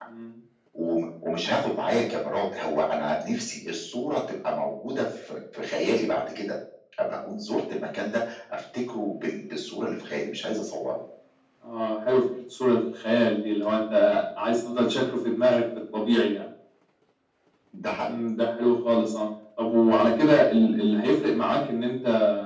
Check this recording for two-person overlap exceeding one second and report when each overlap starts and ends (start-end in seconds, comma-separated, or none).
none